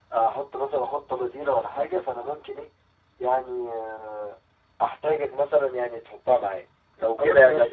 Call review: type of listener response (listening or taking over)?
taking over